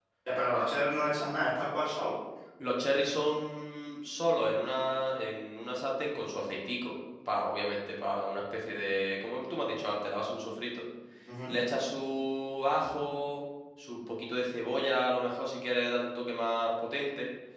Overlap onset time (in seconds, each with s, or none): none